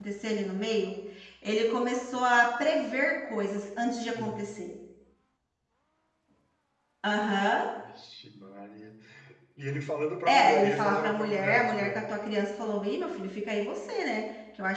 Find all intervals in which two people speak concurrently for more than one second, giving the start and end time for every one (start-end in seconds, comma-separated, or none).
10.2-12.0